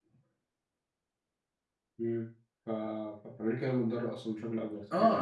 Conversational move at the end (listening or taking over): taking over